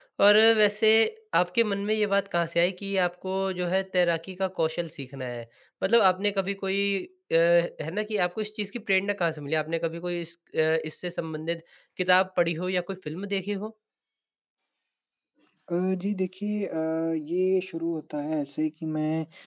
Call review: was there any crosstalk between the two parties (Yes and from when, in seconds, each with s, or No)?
No